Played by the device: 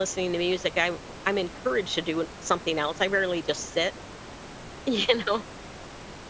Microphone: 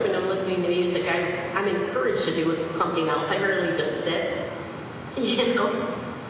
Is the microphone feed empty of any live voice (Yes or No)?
Yes